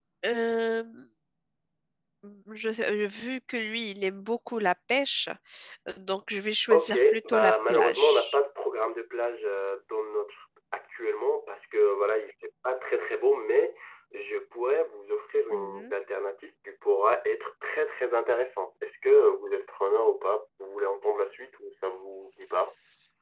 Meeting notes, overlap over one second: present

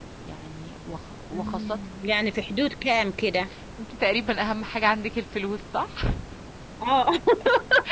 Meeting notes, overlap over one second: none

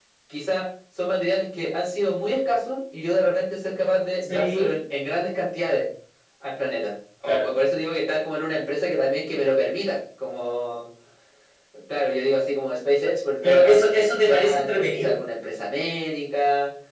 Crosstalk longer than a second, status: present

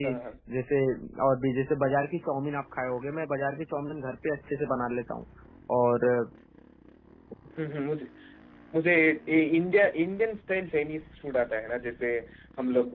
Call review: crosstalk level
none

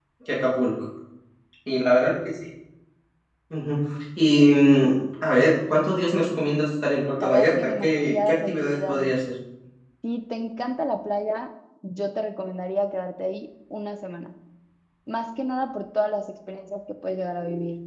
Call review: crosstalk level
present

